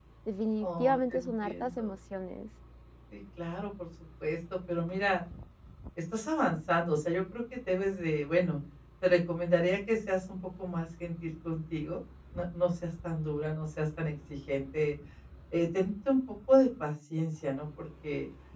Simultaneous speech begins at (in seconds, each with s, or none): 0.6 s